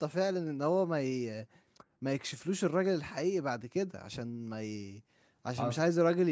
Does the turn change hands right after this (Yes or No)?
No